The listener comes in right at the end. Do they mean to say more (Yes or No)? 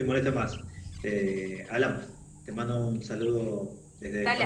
Yes